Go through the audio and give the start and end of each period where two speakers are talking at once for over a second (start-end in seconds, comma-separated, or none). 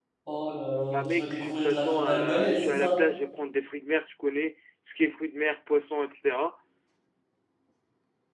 0.9-3.0